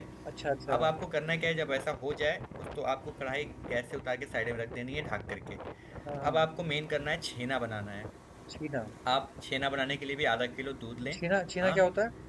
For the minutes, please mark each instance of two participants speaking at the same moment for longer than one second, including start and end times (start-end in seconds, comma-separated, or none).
none